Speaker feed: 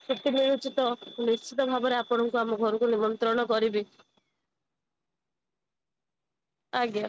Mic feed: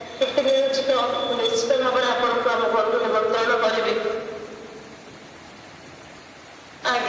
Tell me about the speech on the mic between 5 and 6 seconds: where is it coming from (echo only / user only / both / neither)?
neither